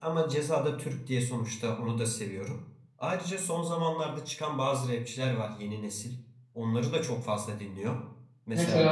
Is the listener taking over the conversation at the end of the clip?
No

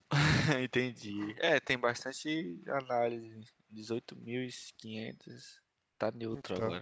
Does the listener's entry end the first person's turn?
No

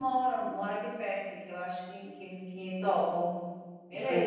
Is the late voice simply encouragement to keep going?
No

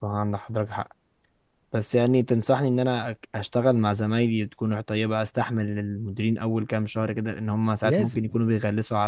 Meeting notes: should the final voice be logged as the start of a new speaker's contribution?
No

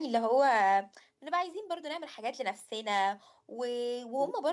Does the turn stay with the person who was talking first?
Yes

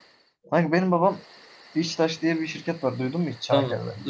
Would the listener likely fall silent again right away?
No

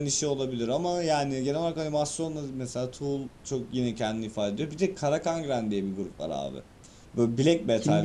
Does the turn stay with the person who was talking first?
Yes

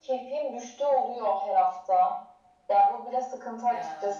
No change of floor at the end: Yes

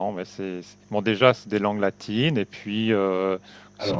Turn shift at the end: No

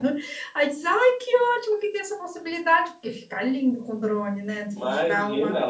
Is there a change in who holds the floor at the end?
Yes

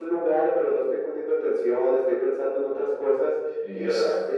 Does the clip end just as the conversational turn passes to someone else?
No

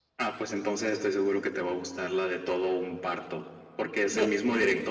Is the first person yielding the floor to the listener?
No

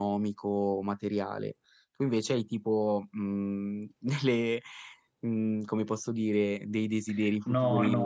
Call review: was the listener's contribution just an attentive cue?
No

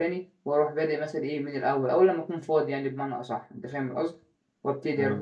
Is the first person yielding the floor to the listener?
No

